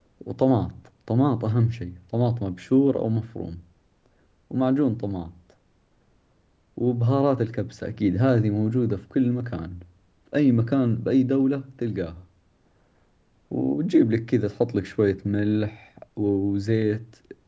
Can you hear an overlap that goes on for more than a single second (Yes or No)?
No